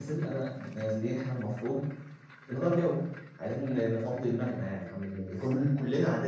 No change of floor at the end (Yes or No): Yes